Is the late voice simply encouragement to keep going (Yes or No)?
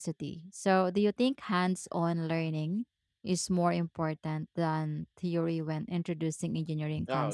No